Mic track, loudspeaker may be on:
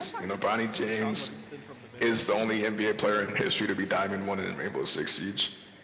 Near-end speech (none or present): present